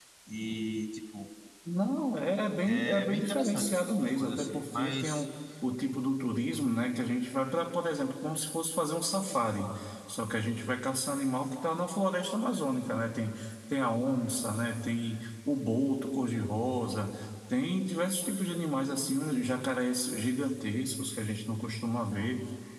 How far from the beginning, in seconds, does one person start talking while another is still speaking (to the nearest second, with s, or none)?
3 s